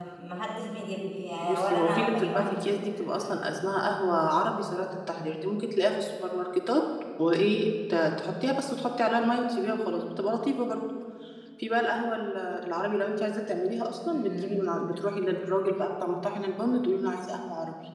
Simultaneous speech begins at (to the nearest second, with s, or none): 1 s